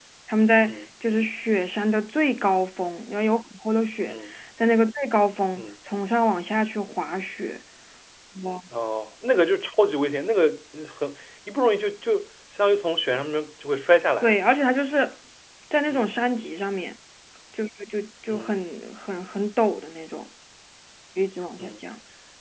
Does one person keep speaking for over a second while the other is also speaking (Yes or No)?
No